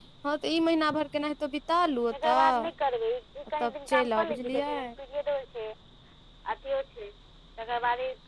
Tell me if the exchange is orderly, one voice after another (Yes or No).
No